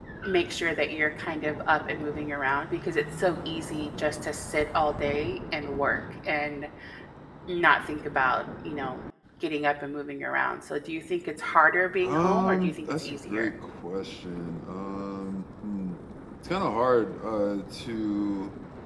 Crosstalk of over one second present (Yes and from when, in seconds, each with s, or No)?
Yes, from 12.0 s